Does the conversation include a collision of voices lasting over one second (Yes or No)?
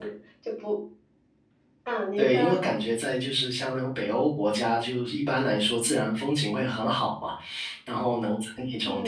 No